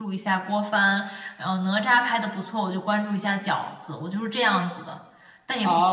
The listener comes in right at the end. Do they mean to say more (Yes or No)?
Yes